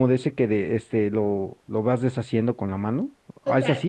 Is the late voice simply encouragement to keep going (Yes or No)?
No